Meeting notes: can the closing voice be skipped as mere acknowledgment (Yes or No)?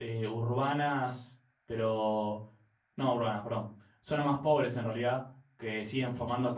Yes